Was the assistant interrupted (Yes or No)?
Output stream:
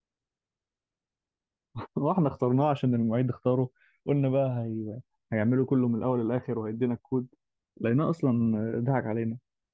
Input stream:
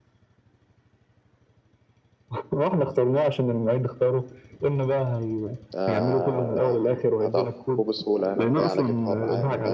Yes